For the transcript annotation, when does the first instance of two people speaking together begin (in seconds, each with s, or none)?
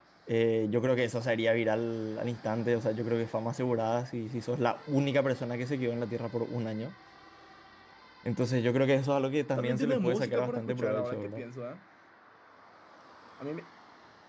9.6 s